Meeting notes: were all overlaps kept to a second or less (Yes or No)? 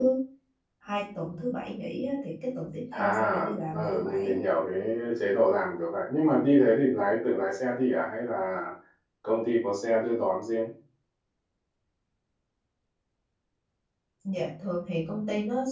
No